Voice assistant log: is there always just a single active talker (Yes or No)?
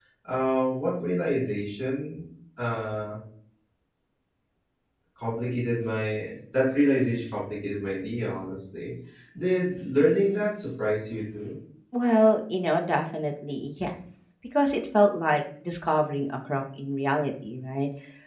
Yes